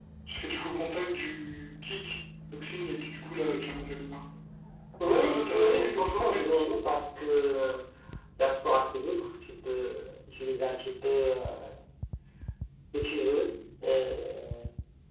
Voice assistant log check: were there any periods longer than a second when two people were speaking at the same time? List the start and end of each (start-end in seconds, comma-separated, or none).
5.1-6.5